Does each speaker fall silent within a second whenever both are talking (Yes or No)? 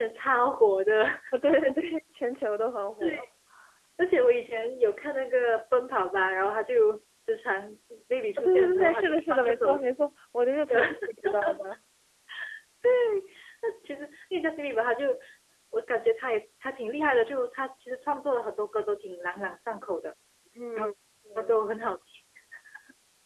No